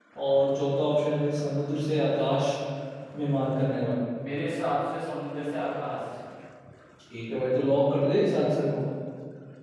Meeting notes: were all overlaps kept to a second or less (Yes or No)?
Yes